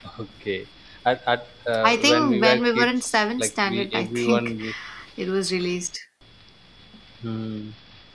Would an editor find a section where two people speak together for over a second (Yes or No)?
Yes